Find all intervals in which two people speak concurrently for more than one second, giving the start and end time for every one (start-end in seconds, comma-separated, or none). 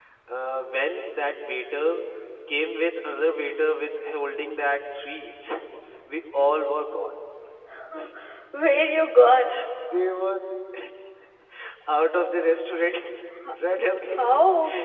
none